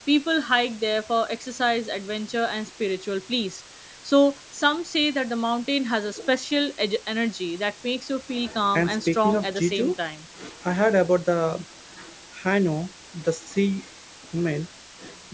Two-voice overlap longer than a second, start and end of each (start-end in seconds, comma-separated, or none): 8.7-9.9